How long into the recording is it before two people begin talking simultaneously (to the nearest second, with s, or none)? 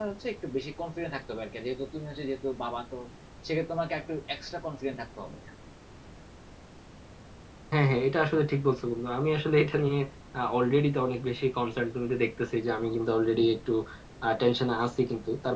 none